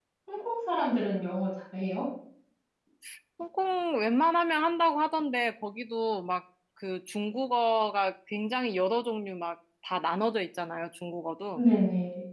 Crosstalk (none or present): none